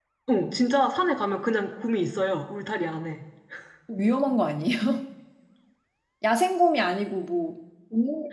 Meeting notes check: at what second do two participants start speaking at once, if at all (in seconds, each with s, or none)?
none